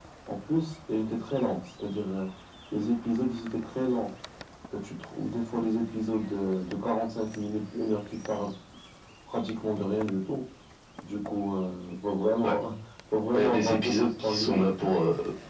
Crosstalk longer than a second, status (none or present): present